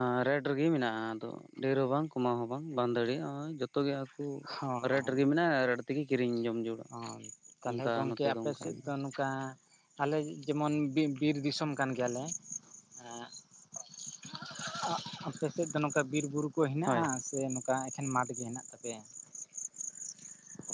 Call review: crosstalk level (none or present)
present